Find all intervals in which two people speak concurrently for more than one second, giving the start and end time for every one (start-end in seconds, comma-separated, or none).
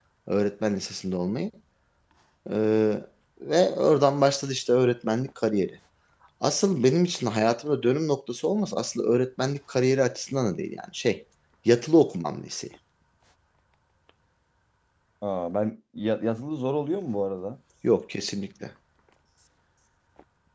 none